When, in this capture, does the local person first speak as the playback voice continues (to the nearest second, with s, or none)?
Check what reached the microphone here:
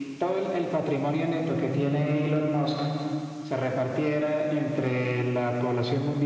none